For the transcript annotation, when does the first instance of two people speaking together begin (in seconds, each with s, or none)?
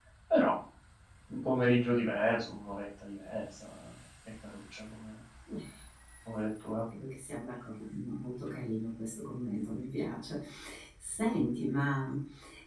none